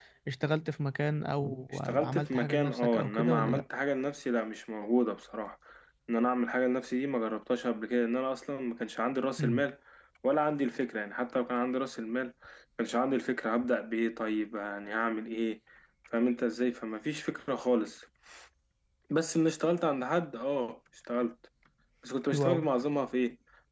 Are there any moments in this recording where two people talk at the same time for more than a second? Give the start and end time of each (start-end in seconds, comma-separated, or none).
1.9-3.6